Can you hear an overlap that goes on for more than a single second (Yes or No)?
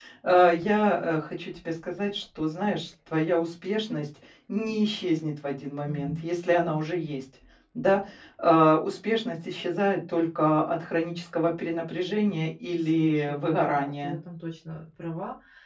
Yes